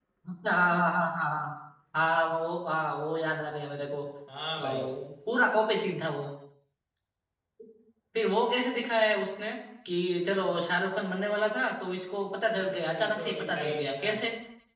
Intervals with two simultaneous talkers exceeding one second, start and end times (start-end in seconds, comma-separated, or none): 12.6-14.1